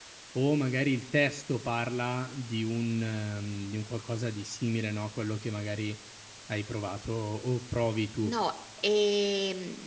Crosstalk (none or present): none